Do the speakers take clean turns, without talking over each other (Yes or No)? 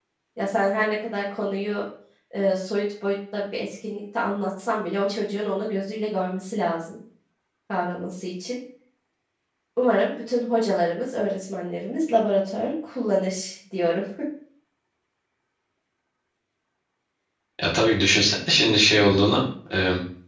Yes